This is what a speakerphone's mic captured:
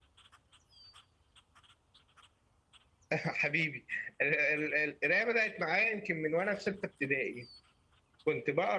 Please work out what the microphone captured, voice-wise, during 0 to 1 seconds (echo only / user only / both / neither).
neither